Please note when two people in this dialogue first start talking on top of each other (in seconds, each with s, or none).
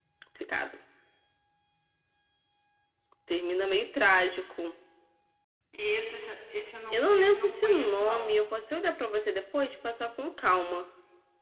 6.9 s